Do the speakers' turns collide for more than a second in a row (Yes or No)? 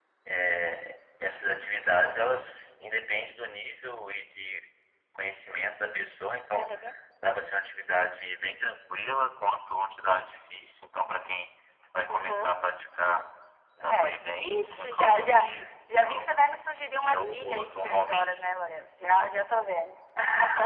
Yes